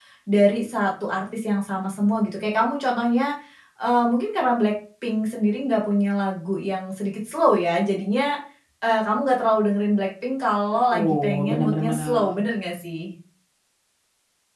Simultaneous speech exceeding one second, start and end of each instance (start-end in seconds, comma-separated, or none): 10.9-12.3